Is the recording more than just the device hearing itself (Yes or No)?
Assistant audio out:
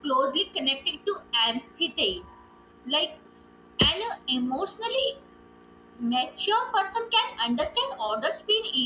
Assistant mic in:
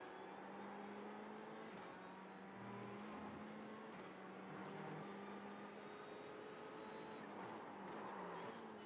No